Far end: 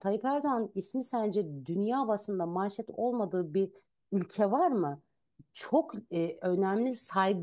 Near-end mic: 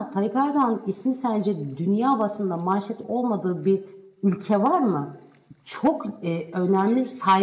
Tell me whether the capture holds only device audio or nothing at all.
Yes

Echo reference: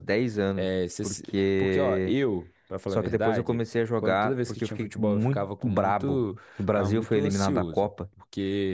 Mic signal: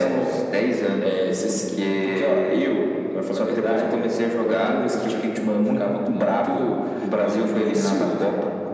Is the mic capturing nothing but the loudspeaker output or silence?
Yes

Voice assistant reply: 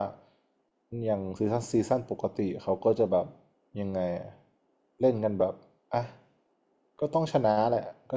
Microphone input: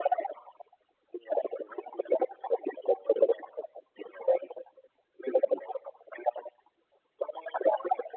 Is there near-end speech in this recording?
No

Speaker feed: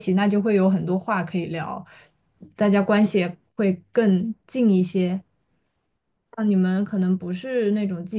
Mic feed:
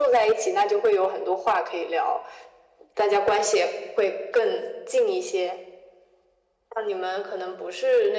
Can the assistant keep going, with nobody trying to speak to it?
Yes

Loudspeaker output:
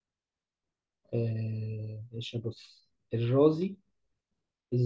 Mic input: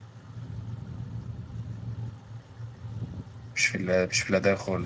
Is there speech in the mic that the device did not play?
Yes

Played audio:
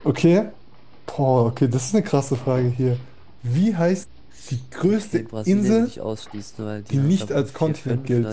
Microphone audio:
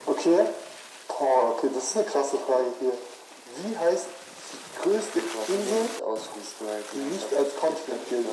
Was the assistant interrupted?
No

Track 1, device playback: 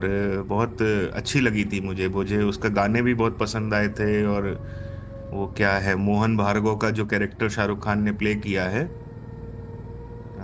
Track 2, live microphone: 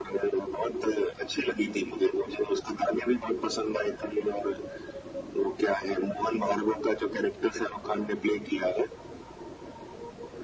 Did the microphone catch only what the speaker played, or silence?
Yes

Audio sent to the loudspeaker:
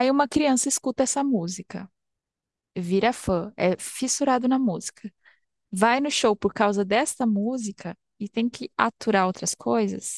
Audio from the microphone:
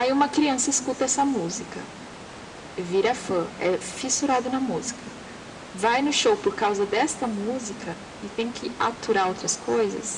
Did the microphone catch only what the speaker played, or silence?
Yes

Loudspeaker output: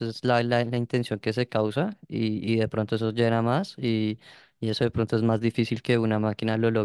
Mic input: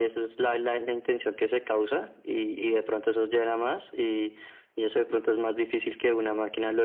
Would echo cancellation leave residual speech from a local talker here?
No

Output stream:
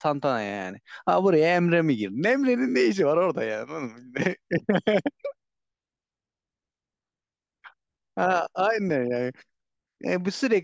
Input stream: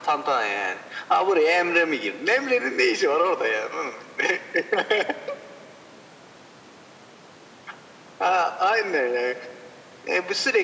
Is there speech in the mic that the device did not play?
No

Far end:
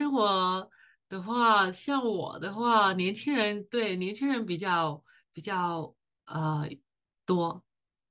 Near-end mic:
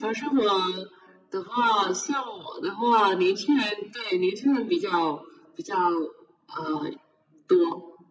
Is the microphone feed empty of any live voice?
Yes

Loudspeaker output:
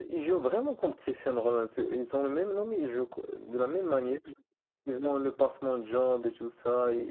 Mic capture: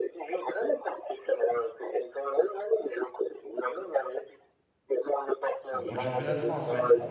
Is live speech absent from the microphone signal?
No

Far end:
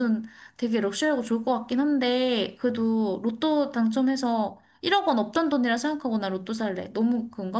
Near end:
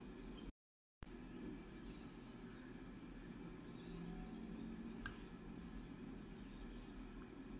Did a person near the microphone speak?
No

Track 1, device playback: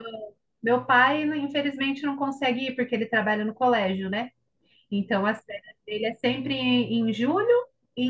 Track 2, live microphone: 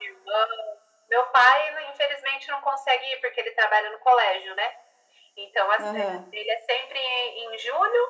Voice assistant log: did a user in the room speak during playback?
Yes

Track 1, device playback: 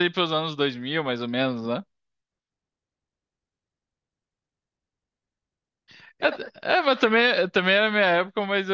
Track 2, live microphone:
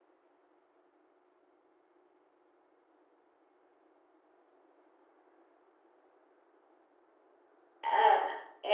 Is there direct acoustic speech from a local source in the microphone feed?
Yes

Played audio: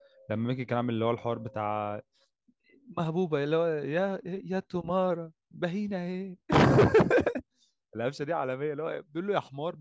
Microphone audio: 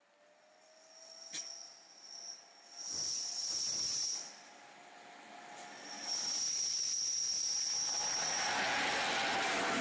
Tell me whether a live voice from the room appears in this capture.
No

